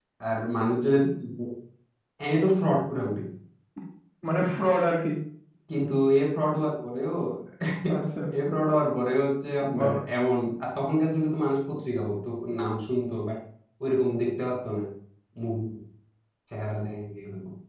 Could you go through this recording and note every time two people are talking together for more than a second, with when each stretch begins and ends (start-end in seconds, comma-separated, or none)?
none